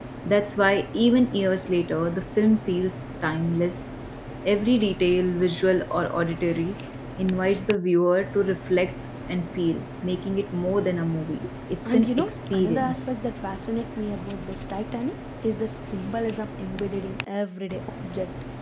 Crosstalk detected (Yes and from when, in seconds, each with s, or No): Yes, from 11.8 s